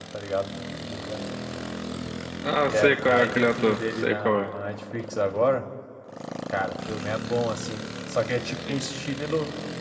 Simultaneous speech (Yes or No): Yes